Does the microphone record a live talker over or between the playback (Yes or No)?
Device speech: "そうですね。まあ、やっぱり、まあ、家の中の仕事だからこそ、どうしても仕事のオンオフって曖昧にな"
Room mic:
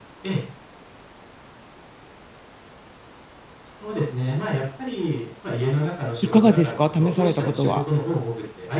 Yes